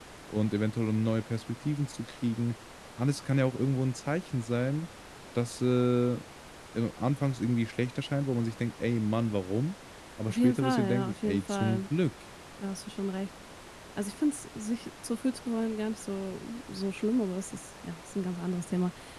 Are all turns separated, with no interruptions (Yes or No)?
No